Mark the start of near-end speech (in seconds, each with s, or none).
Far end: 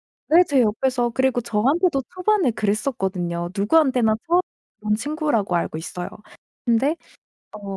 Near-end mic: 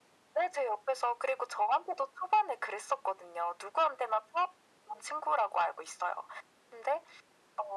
none